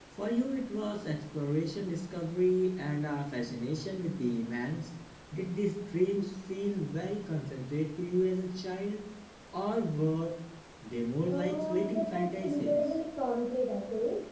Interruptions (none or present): present